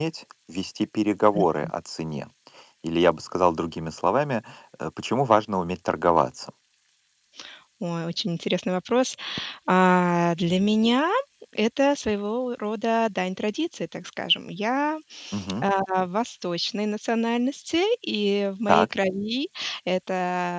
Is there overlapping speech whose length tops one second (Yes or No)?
No